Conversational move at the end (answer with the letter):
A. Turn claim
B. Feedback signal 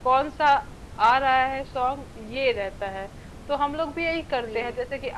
B